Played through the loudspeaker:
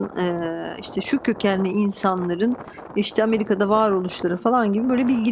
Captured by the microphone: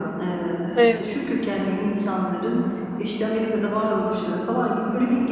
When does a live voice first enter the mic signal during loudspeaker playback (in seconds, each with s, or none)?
0.8 s